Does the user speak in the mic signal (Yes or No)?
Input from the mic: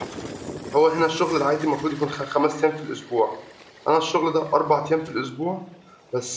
Yes